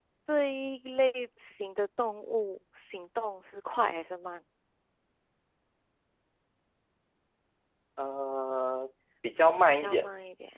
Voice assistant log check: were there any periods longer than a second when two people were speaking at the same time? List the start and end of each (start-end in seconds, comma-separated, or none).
none